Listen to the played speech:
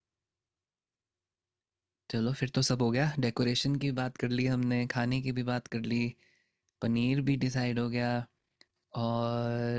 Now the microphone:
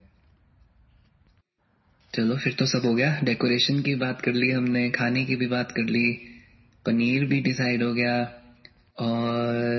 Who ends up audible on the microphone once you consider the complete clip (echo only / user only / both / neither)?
echo only